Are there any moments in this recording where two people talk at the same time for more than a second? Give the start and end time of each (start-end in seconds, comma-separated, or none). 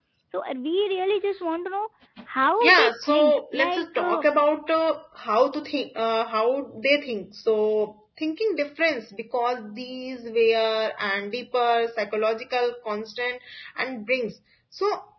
2.6-4.2